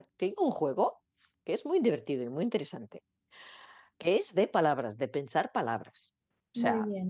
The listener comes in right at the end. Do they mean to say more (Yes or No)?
No